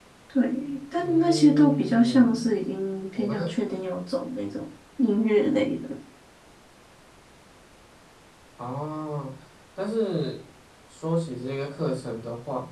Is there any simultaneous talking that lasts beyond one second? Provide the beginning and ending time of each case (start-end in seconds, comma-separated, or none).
1.0-2.4